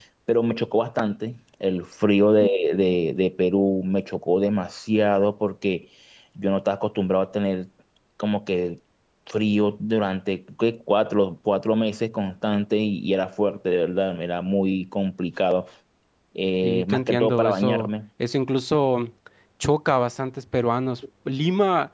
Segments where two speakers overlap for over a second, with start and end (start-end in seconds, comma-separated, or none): 16.6-17.9